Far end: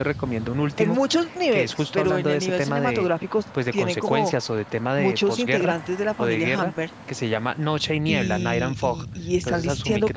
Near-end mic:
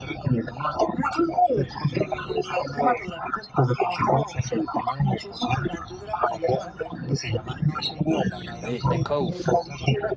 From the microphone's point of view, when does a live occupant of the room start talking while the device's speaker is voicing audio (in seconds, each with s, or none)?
8.6 s